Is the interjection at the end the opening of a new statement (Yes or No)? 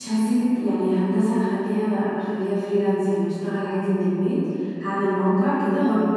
No